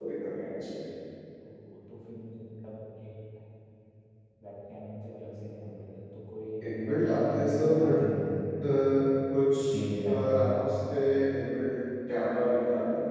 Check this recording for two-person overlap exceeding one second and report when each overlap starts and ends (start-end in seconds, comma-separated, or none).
6.7-8.0